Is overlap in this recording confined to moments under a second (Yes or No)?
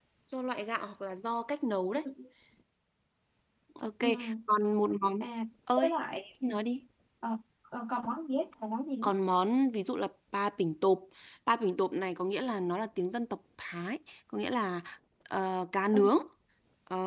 Yes